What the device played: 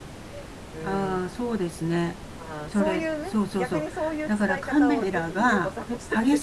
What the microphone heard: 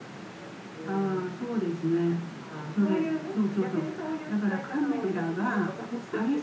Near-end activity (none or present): none